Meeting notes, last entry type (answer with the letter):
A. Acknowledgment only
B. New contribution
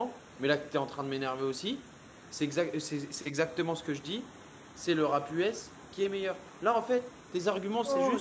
B